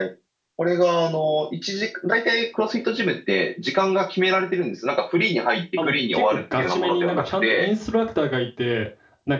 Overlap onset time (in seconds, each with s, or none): 5.8 s